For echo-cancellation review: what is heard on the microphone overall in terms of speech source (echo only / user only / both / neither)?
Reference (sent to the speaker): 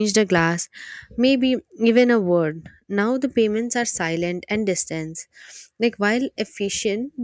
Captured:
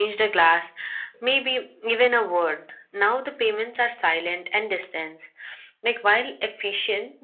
echo only